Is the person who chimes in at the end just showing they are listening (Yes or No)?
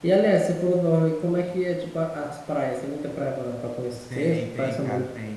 No